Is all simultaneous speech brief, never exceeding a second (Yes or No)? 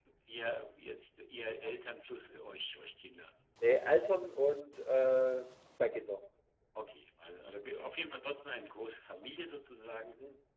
Yes